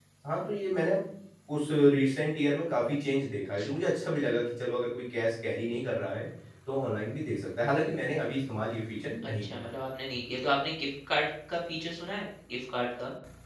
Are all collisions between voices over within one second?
Yes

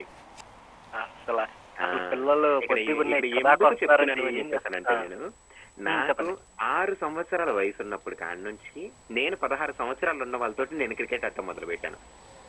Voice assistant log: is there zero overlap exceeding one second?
No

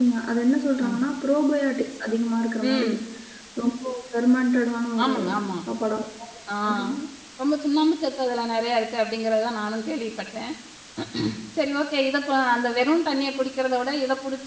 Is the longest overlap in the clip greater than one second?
No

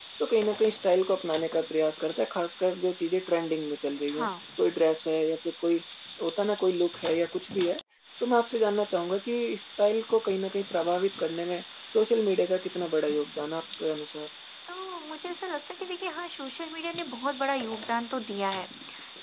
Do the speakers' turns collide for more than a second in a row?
No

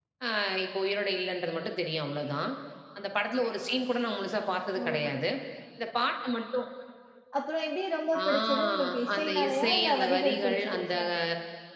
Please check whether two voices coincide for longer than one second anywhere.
Yes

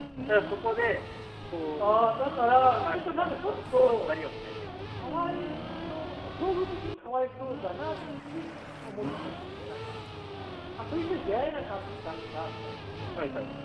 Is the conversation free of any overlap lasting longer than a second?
No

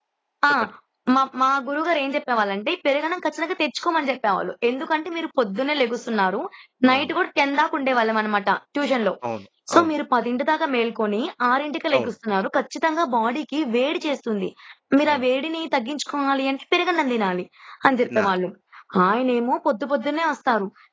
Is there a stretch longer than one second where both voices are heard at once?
No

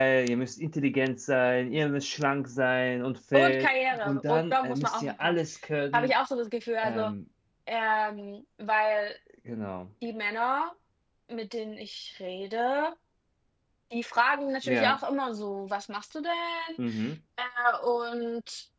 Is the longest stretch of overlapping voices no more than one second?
No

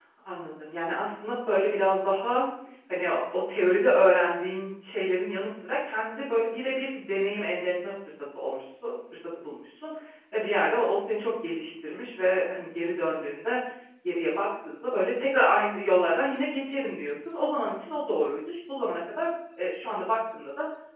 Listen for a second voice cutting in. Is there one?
No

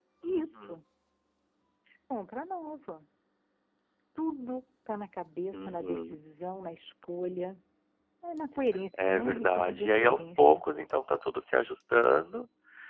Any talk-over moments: Yes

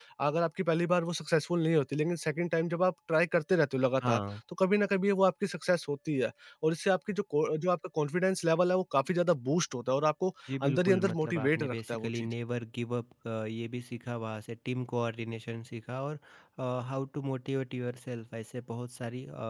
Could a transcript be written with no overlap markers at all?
No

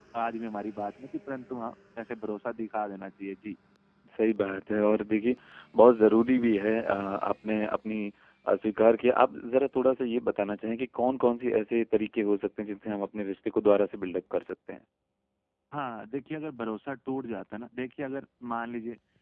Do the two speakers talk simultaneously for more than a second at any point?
No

